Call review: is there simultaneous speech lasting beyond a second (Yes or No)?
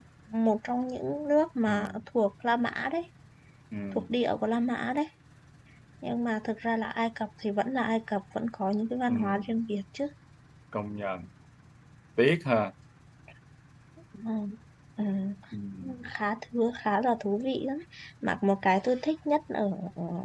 No